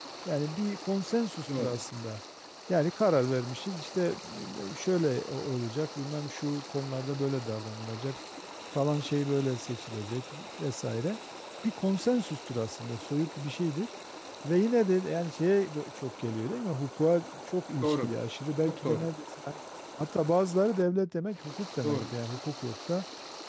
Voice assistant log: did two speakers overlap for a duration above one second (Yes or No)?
No